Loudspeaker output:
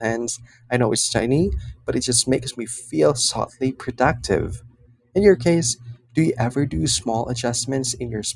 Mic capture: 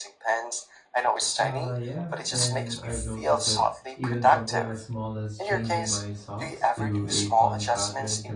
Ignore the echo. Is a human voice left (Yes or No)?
Yes